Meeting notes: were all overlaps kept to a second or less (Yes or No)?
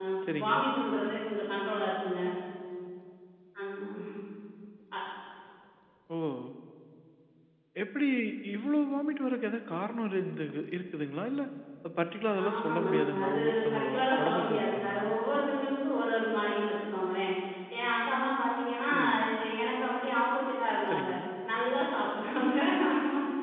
No